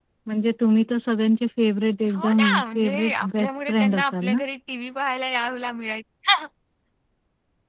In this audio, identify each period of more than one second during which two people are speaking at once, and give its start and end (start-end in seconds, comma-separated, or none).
2.1-4.4